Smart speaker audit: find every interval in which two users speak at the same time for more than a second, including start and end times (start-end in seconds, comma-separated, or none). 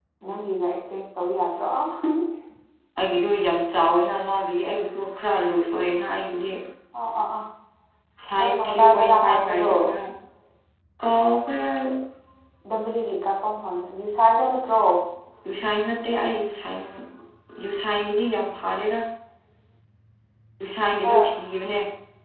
8.4-9.7